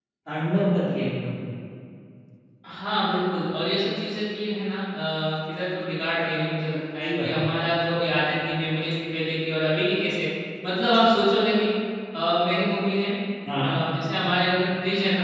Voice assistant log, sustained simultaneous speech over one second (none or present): none